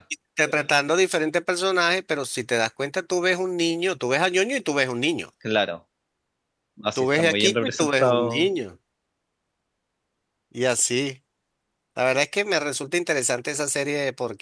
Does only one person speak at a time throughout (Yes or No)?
No